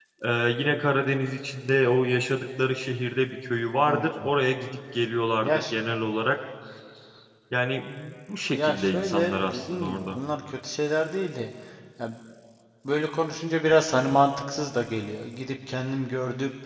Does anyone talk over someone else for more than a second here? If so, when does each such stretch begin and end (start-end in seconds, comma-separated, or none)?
8.5-10.2